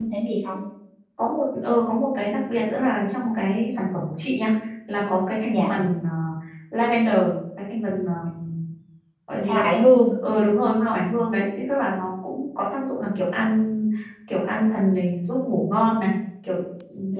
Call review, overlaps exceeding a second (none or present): none